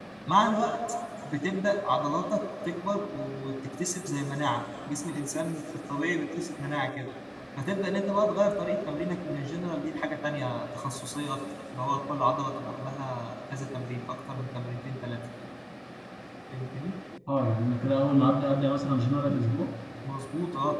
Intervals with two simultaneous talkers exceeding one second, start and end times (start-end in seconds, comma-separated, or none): none